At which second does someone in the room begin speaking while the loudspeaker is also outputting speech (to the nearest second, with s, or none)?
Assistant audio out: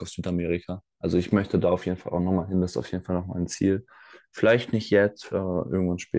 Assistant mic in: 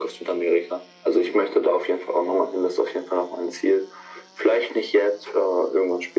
none